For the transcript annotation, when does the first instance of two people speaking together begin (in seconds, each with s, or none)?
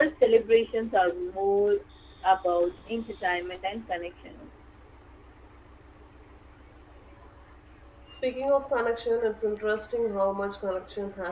none